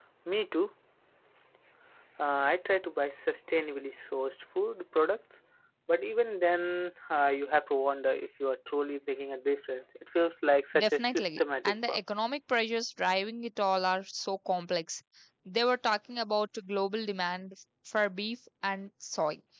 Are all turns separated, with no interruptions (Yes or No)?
No